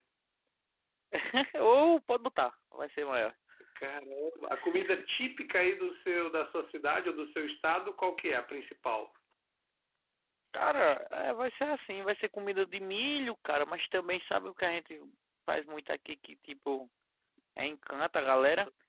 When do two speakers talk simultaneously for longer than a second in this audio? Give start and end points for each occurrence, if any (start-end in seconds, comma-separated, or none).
none